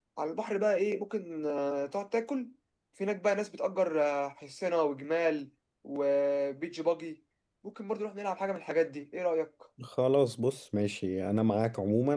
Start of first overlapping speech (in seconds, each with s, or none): none